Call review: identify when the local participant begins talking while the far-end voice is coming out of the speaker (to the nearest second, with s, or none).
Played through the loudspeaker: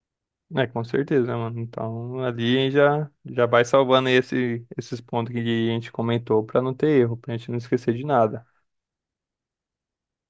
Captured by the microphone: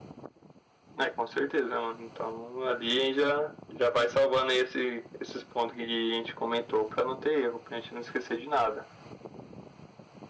none